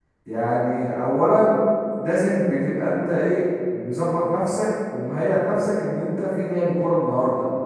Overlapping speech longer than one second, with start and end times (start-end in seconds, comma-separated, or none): none